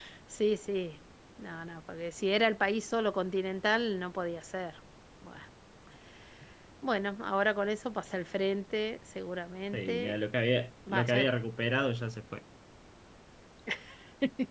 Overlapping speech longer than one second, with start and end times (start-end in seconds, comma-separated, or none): none